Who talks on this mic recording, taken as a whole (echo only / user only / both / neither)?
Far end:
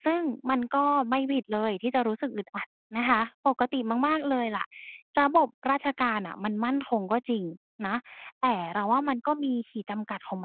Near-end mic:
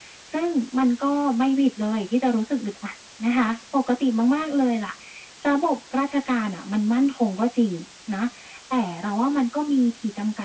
echo only